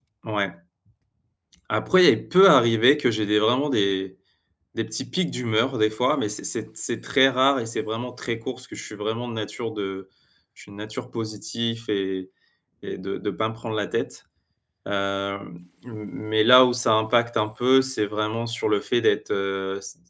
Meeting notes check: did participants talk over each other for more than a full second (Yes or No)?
No